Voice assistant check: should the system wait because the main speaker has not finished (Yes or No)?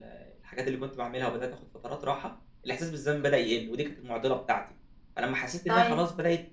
Yes